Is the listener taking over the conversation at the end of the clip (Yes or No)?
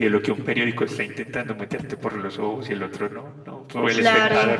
Yes